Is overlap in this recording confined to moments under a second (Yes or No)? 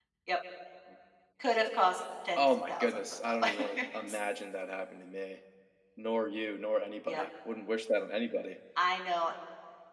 No